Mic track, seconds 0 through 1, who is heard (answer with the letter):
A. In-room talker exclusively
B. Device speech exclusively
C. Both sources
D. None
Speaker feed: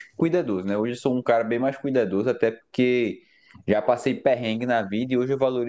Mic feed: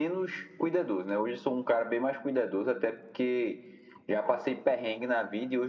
B